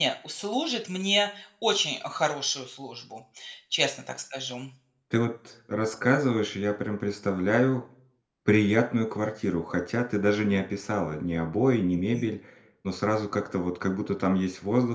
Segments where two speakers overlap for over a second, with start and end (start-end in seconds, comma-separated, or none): none